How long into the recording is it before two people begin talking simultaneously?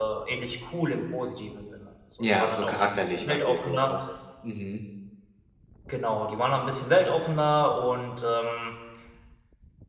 2.2 s

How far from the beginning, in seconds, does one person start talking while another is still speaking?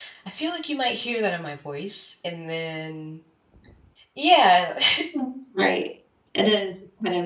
none

